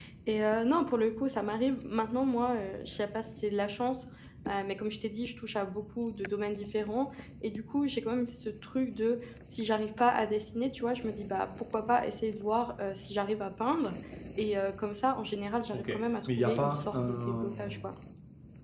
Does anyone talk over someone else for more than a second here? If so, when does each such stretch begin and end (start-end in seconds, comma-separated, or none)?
16.4-17.8